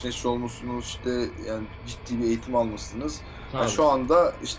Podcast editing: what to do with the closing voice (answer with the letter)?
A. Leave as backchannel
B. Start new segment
A